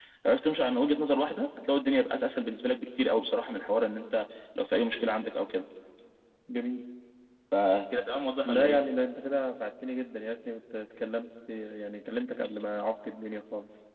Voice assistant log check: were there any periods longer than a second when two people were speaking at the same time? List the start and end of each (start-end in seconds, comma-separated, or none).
none